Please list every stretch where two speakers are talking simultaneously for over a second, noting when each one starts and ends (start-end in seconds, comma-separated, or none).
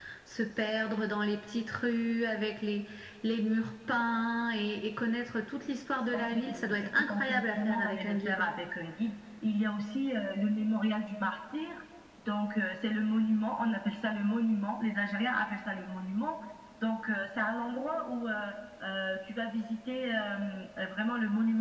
6.1-8.4